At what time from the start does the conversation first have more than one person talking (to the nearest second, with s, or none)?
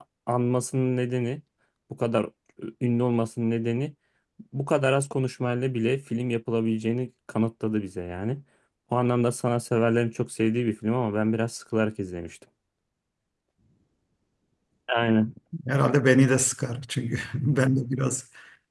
none